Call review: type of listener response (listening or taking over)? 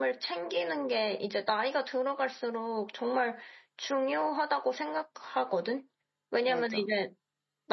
listening